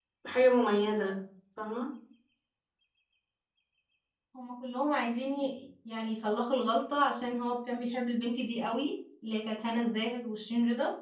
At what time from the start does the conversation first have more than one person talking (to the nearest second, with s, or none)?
none